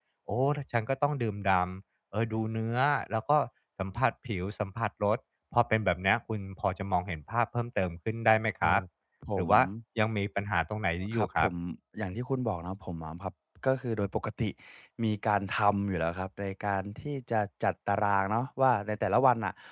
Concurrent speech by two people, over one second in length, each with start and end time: none

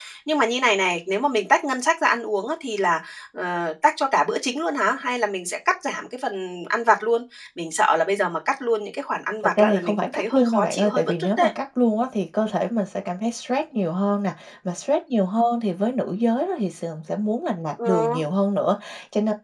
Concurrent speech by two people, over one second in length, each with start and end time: 9.6-11.5

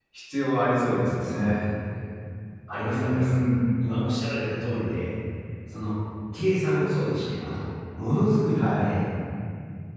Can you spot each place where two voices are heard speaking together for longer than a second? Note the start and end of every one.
none

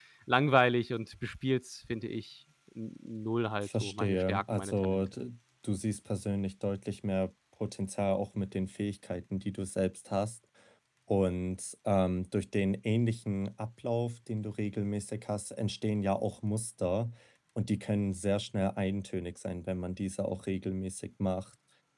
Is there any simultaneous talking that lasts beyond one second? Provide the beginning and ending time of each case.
3.6-5.0

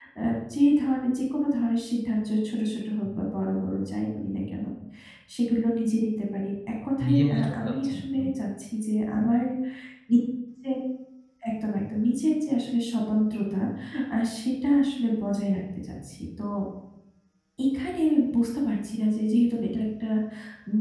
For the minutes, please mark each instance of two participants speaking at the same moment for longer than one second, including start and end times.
7.0-8.2

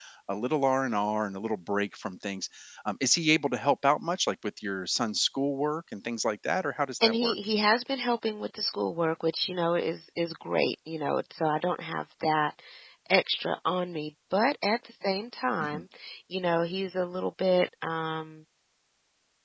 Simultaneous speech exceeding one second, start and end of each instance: none

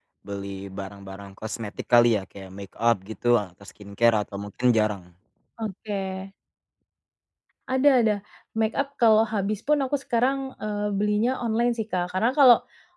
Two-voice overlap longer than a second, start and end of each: none

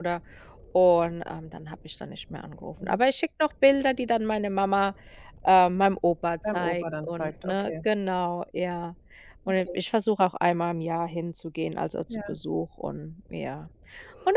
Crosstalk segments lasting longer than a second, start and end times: 6.5-7.7

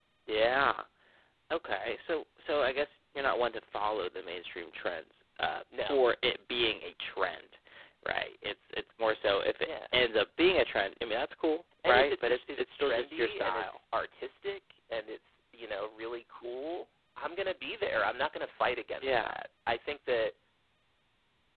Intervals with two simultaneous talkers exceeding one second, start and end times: 11.8-13.8

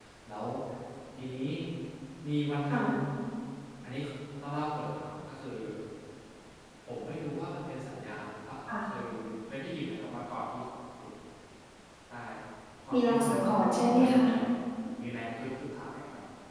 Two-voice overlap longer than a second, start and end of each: 12.9-14.2

